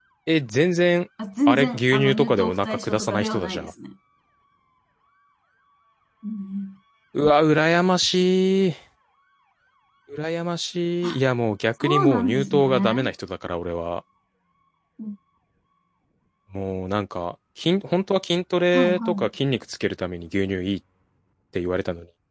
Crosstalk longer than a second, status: present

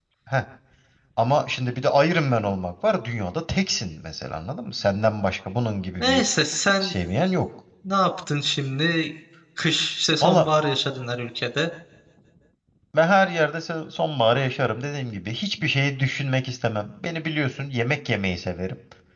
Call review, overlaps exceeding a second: none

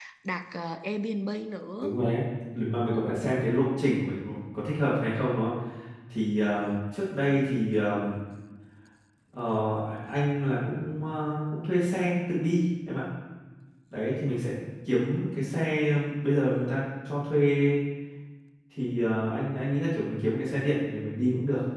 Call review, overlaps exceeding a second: none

